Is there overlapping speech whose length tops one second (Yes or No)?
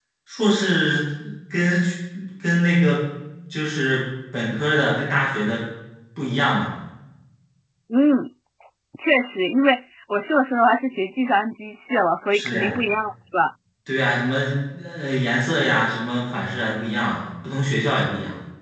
No